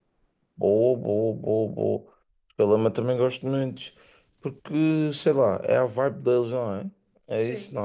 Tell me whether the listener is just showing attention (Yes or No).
No